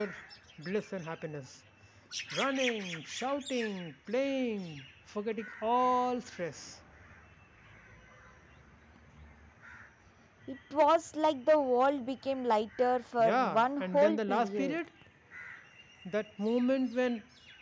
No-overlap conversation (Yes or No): No